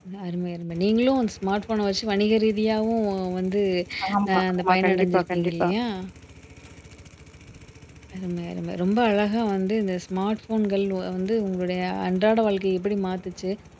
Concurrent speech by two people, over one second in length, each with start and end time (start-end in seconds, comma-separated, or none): 4.3-5.7